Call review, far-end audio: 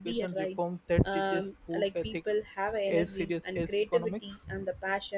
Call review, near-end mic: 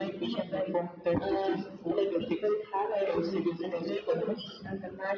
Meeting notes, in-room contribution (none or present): none